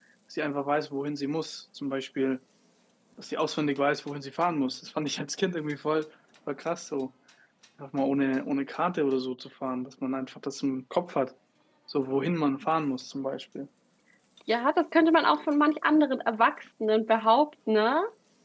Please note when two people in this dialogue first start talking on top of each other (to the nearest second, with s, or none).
none